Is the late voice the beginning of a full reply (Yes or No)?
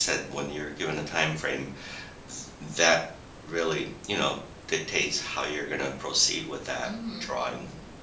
Yes